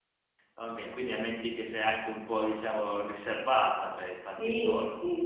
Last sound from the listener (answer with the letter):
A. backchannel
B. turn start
B